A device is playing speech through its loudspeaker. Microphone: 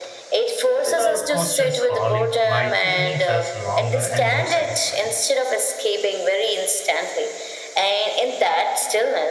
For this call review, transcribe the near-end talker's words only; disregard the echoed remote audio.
Without constant scrolling, my evening felt longer and more satisfying.

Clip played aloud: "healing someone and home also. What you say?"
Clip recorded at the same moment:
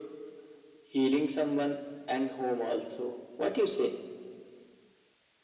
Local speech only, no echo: none

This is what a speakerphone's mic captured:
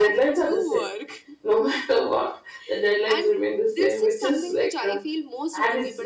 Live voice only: none

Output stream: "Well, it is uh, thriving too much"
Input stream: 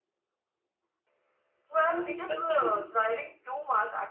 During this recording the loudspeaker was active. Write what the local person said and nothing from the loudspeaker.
Rude but true.

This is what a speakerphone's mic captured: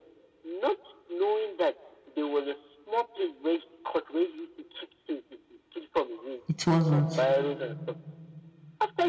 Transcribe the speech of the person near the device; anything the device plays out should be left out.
It wasn't.

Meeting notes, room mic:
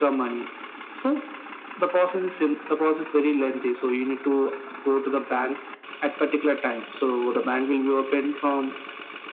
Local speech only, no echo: none

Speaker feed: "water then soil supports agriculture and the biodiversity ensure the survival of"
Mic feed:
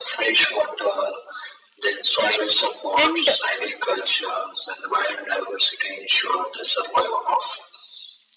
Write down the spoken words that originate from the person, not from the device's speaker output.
and

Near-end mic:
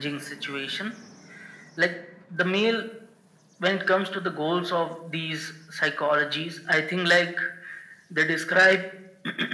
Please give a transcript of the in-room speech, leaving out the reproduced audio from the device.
none

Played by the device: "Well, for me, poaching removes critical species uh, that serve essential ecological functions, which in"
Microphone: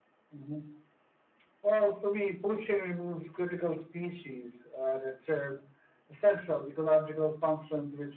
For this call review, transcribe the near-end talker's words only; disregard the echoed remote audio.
none

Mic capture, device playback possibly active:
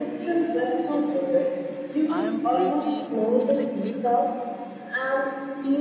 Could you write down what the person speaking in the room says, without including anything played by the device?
I am pretty eclectic,

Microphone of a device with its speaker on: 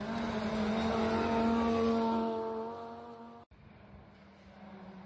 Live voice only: none

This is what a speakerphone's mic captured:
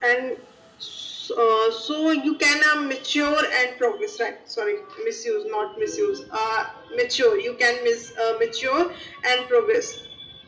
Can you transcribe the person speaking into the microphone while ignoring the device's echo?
none

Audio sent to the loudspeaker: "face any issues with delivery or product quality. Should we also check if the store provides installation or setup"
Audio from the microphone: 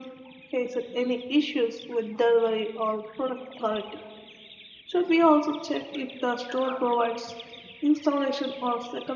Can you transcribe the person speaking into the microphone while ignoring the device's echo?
none

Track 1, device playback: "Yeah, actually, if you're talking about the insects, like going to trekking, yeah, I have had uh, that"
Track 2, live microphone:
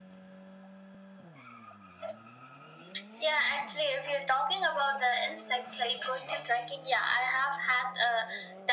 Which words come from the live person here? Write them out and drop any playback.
none

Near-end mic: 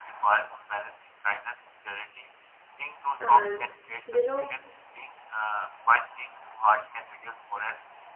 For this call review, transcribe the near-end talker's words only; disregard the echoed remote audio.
and you know

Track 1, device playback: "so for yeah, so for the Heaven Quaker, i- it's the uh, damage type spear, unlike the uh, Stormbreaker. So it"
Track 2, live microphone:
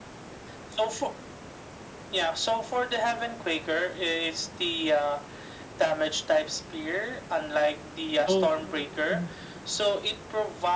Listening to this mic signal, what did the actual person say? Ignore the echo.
So mm,

